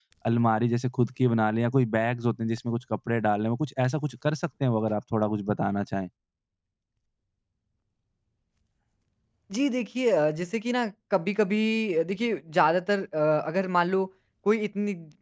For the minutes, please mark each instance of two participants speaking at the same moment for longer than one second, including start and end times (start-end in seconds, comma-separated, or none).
none